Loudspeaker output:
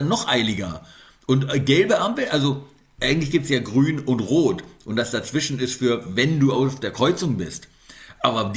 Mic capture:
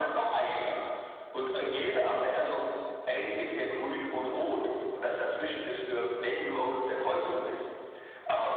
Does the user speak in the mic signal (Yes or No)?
No